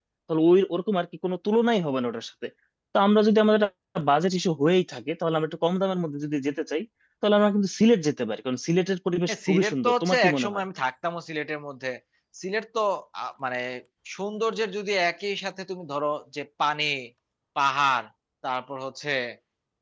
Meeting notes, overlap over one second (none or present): present